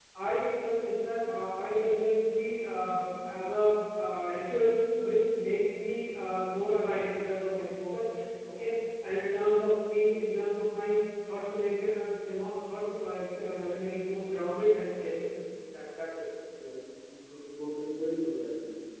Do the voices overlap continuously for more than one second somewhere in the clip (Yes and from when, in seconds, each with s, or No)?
No